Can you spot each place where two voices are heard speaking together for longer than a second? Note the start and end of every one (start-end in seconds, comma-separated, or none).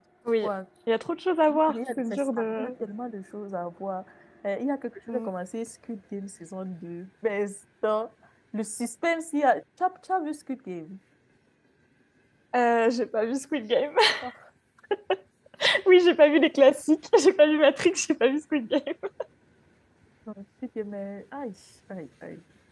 1.5-2.7